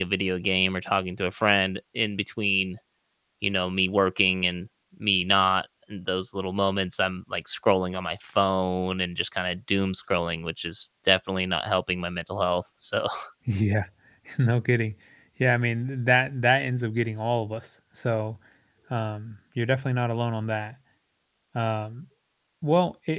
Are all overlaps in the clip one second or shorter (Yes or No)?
Yes